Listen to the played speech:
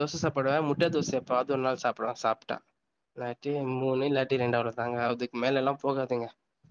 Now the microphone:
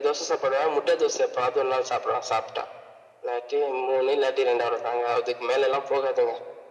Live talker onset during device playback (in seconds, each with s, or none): none